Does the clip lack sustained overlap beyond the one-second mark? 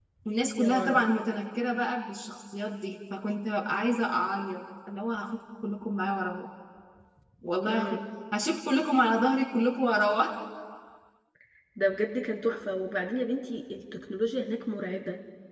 Yes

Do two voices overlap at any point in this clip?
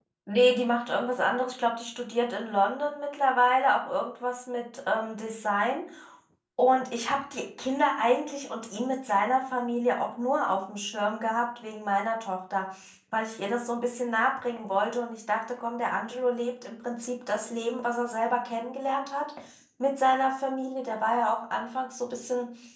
No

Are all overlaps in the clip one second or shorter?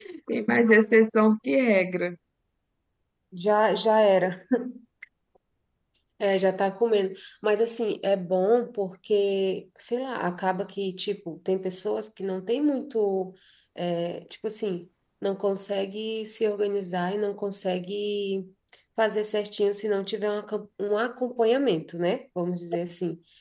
Yes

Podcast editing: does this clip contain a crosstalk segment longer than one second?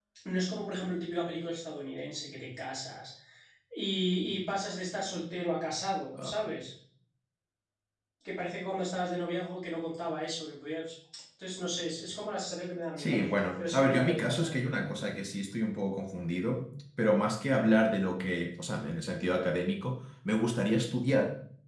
Yes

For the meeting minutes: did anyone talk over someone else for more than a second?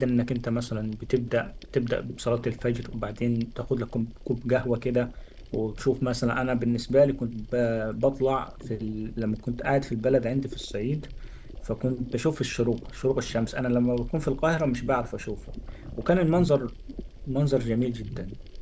No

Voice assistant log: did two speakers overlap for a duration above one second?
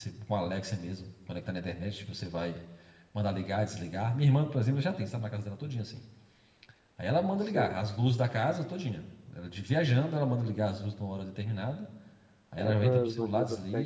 Yes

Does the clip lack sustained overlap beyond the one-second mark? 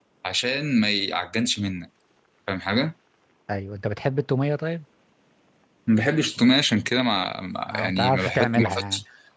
No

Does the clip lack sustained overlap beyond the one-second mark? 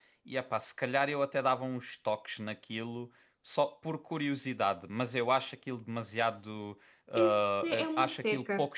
No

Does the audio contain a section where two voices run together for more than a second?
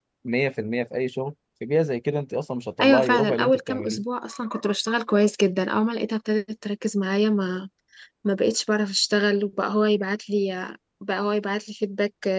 Yes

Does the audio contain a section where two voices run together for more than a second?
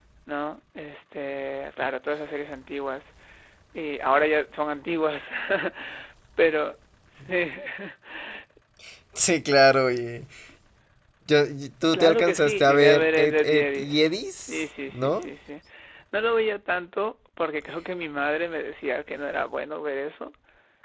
Yes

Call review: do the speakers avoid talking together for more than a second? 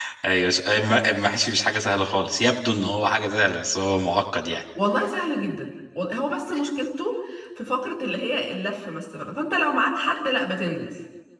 Yes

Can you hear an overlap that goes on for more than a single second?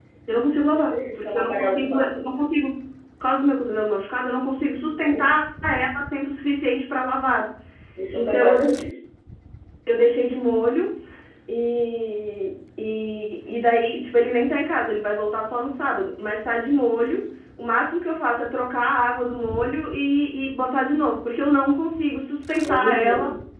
Yes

